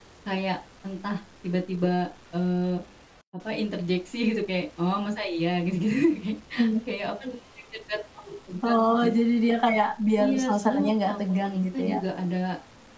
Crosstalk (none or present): present